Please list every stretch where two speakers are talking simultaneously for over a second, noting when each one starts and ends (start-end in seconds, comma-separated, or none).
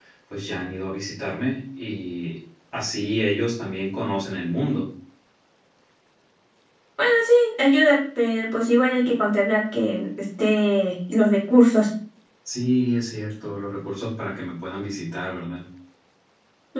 none